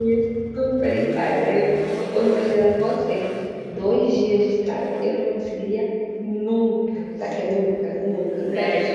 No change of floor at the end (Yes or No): No